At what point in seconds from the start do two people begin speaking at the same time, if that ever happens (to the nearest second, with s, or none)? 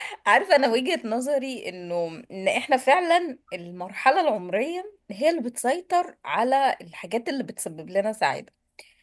none